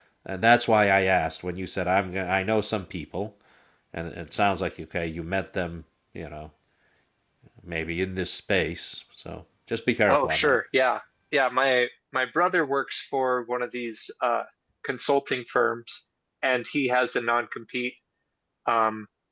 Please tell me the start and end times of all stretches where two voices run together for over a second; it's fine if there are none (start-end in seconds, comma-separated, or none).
none